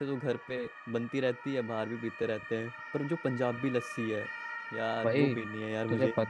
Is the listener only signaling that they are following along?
No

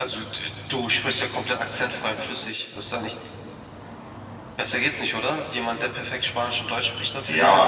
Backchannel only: No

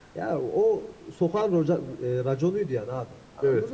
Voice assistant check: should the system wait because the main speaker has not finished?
Yes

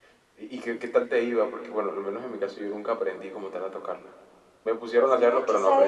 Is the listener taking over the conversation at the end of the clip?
Yes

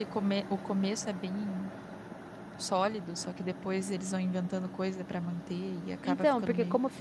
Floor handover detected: Yes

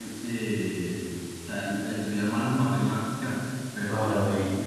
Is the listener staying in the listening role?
Yes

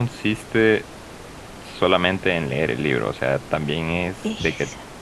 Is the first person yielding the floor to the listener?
No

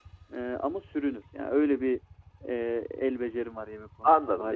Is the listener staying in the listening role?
No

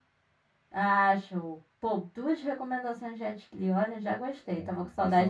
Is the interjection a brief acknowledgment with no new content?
No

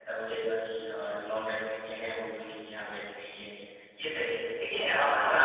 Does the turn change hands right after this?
No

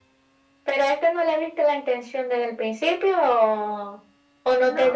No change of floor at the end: Yes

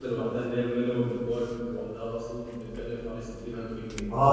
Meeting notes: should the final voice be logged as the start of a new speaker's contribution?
Yes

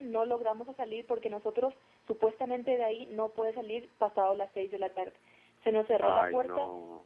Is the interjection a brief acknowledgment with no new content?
Yes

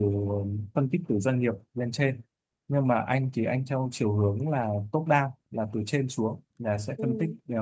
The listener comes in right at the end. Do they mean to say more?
No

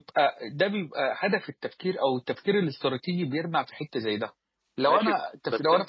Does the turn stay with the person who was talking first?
No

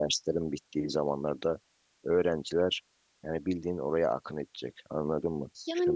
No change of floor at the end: No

